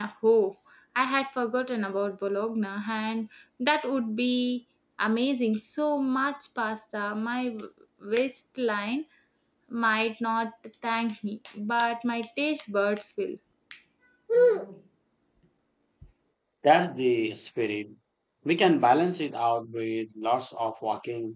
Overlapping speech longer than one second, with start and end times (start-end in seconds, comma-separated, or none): none